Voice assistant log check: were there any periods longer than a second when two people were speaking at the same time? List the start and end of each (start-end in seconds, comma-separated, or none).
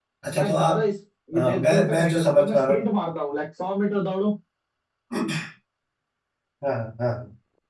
1.4-2.9